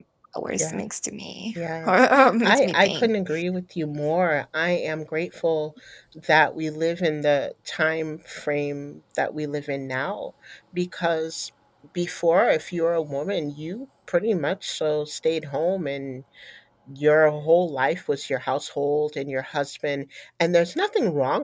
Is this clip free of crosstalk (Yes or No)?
No